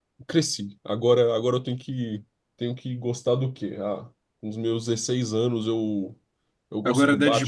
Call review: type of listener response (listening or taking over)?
listening